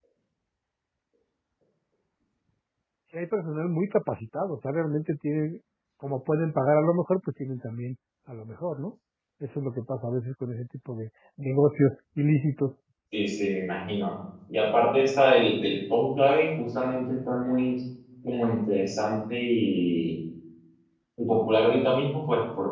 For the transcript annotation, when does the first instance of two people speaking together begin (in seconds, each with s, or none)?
none